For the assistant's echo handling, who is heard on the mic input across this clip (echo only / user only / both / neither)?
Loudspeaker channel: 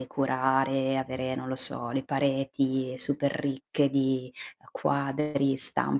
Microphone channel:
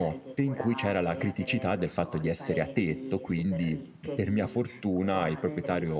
both